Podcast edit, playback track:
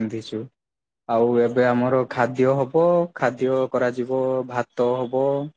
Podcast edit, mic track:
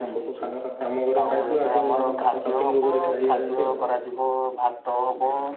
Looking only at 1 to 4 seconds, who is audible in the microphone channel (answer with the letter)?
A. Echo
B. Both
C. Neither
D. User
B